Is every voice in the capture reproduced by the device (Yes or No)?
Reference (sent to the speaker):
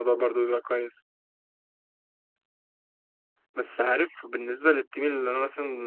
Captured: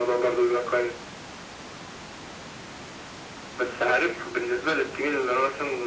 Yes